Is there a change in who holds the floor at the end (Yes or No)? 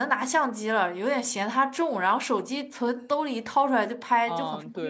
Yes